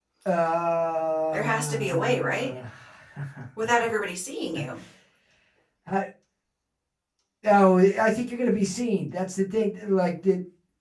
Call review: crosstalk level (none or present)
present